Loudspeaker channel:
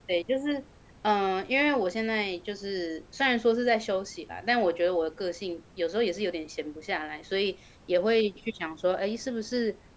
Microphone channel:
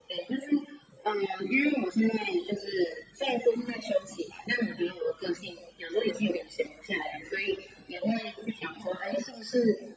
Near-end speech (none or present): none